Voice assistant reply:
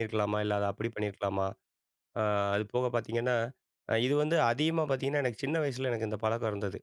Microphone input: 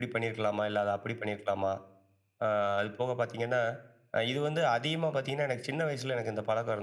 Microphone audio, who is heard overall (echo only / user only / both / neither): echo only